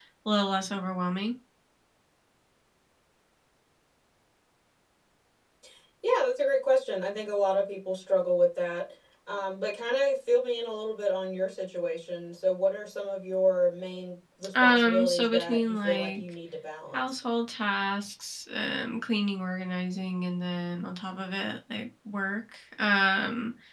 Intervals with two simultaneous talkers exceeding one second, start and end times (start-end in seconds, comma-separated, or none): 14.6-16.3